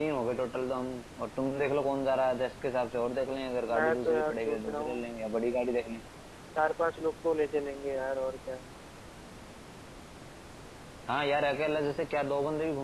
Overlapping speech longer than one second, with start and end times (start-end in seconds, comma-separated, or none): 3.7-5.1